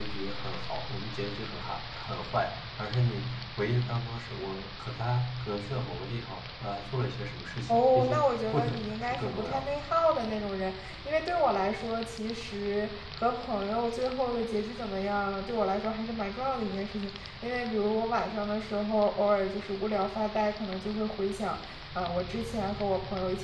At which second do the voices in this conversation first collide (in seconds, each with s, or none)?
7.7 s